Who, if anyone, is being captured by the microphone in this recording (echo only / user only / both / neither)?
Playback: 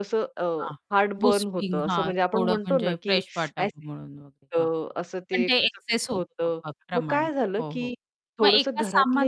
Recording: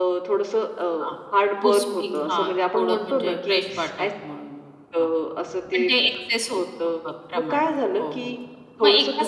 echo only